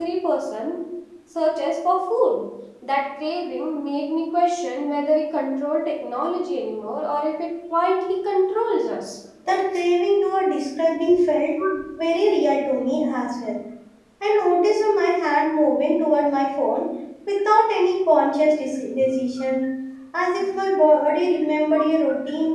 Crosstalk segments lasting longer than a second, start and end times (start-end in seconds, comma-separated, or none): none